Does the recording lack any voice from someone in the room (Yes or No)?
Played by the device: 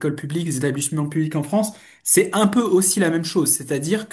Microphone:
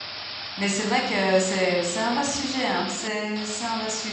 No